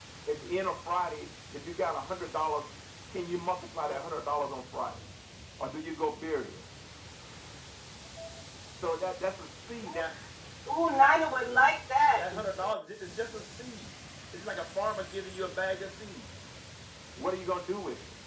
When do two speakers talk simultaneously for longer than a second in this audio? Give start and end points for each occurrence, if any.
none

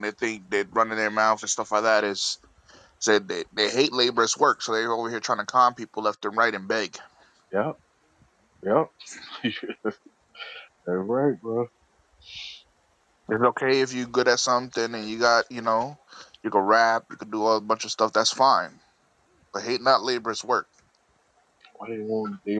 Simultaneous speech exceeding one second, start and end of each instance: none

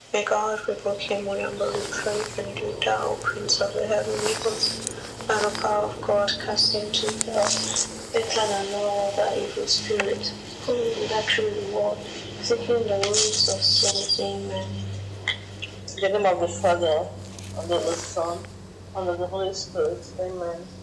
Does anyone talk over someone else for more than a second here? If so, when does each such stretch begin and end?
none

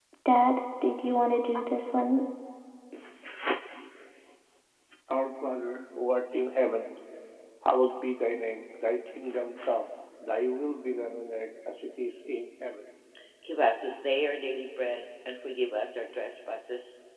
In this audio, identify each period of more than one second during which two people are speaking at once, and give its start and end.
none

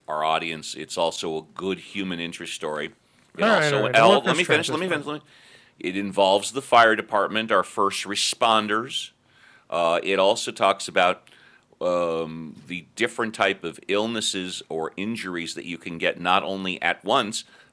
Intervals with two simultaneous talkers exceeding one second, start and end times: 3.4-5.0

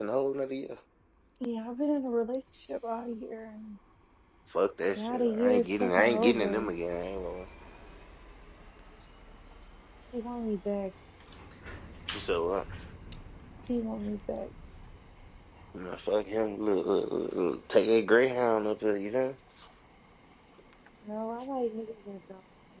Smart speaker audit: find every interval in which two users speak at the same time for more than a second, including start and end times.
5.0-6.7

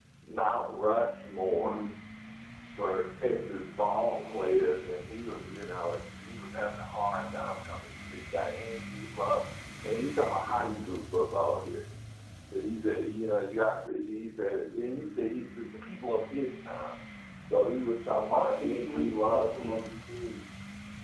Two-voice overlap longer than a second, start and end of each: 18.3-19.8

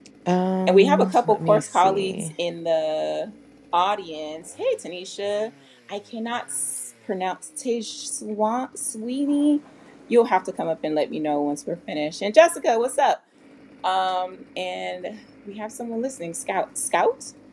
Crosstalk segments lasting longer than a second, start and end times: 0.7-2.3

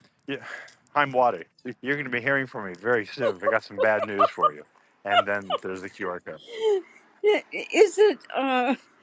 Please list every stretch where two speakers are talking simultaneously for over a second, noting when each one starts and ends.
none

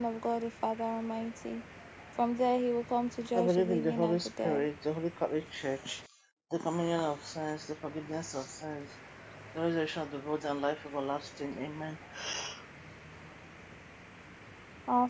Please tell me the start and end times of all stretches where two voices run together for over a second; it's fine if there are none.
3.4-4.6

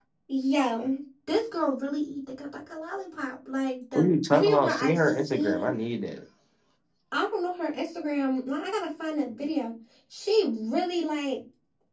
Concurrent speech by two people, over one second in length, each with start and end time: 4.0-5.7

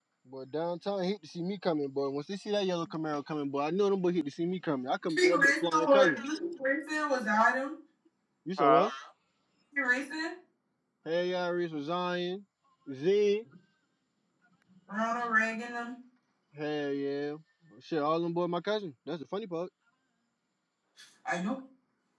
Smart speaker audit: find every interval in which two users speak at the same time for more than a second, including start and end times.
5.2-6.4

